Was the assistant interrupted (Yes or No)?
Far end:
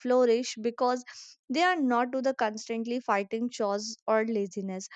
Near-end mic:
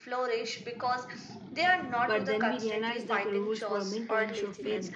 Yes